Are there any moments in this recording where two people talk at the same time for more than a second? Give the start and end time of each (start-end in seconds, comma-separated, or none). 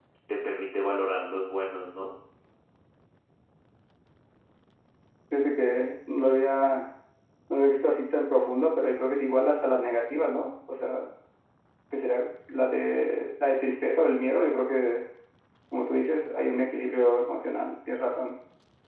none